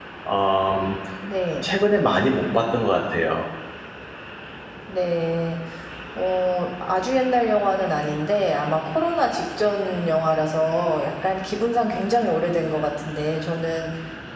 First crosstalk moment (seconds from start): none

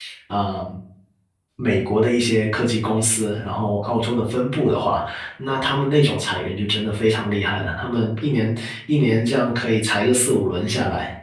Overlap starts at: none

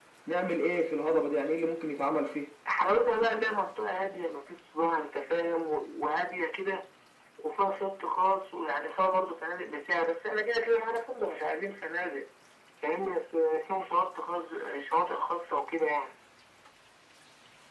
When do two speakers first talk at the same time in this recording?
none

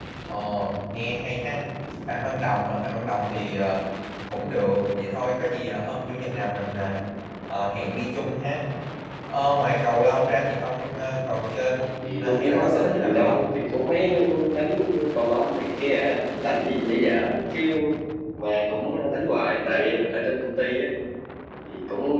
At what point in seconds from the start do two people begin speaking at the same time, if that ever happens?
12.0 s

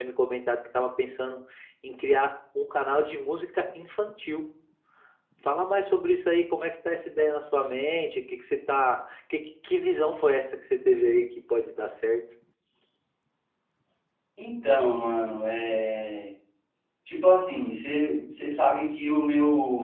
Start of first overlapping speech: none

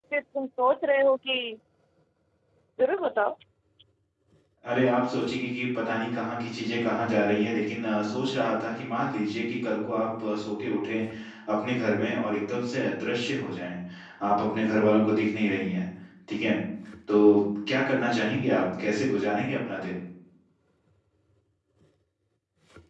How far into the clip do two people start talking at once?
none

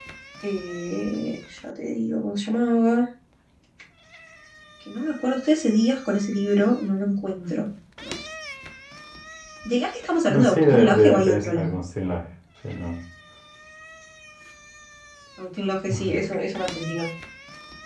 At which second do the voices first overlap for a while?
10.3 s

